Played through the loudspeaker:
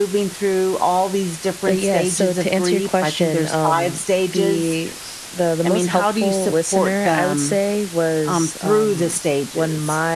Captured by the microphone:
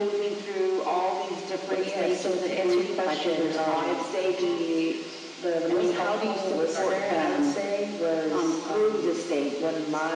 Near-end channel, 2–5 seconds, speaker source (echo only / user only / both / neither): echo only